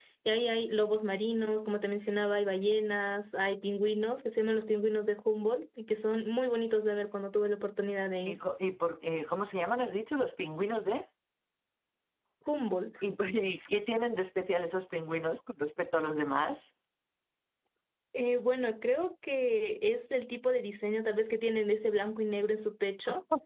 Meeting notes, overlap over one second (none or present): none